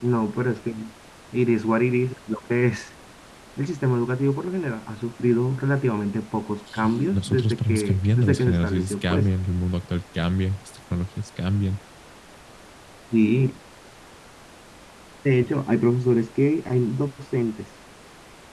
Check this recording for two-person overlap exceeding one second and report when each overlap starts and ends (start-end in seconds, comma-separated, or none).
6.7-9.3